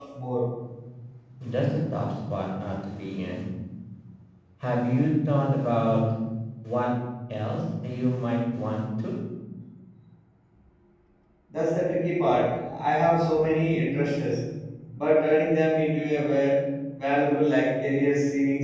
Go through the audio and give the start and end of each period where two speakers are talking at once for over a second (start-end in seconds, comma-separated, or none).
none